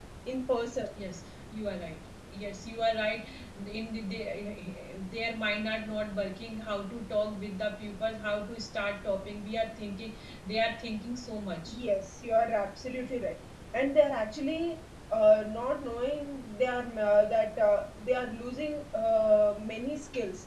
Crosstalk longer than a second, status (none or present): none